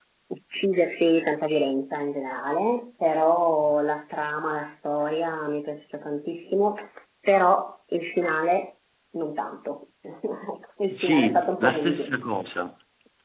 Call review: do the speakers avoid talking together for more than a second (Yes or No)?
No